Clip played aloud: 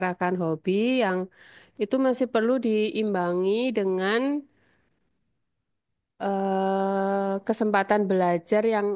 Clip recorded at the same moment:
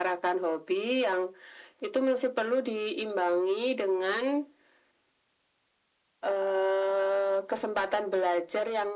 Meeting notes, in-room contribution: none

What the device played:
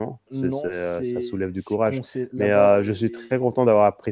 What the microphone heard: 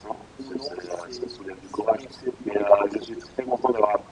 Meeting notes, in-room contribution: none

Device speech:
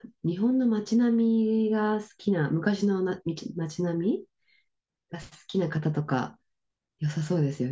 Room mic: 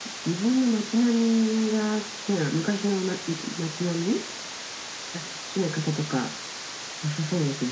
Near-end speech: none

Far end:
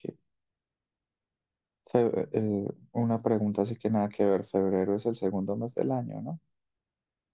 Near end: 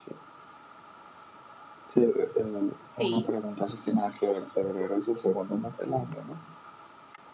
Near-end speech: present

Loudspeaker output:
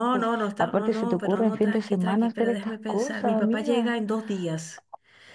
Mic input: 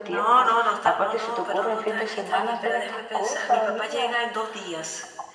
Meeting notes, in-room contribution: none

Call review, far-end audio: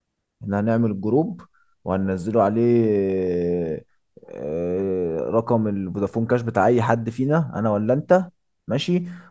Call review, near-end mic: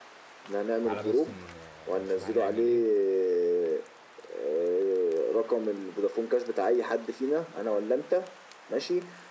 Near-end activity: present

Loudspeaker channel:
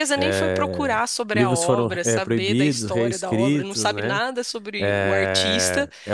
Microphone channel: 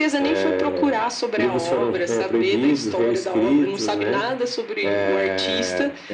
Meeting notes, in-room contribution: none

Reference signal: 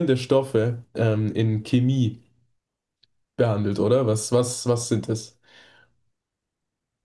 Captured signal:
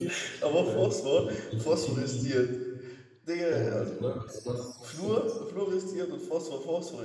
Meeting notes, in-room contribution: present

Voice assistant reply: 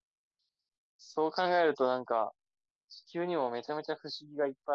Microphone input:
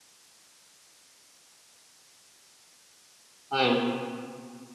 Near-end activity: present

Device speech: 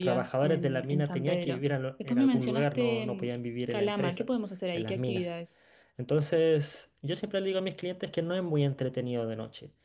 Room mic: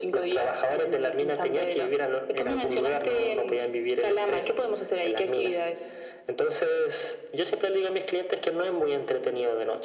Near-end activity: none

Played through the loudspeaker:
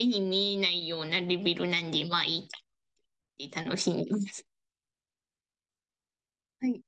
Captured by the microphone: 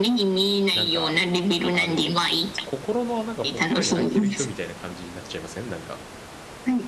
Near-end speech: present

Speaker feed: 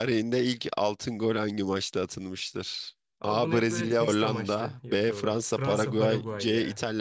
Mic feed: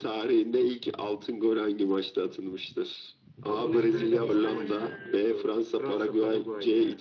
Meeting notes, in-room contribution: present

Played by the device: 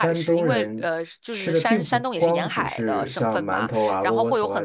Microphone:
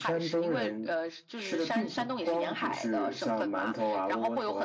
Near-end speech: none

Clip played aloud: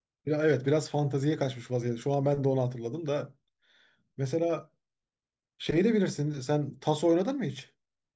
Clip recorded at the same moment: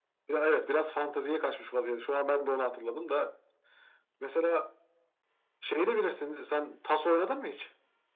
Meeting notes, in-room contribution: none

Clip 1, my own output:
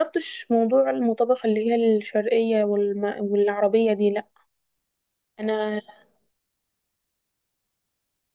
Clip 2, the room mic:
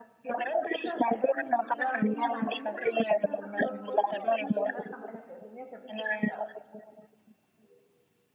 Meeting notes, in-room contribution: present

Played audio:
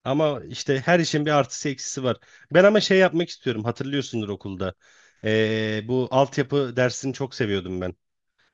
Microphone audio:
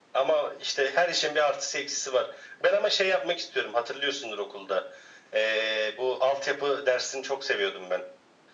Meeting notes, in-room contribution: none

